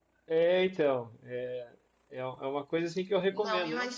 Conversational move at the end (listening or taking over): taking over